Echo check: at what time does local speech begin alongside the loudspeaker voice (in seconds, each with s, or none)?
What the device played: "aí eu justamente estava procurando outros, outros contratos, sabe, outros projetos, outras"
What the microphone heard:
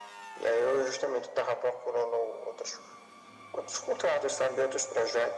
none